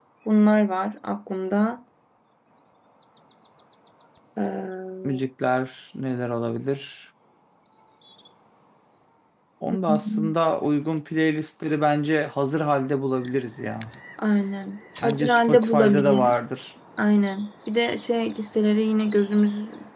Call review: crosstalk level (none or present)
present